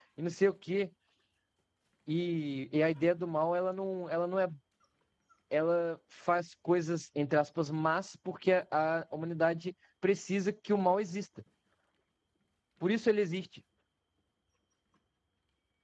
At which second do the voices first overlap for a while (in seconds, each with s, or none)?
none